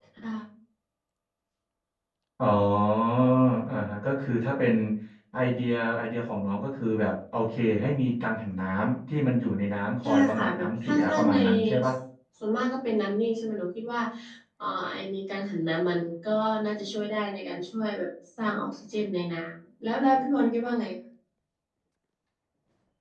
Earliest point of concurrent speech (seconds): 10.0 s

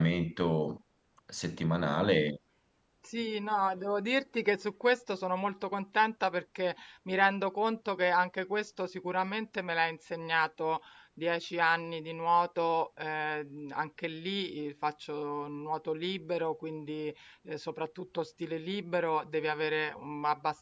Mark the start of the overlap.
none

